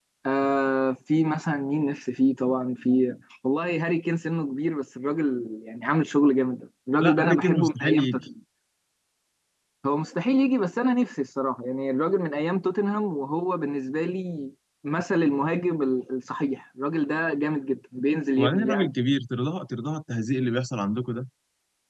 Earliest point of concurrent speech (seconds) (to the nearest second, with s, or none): 7 s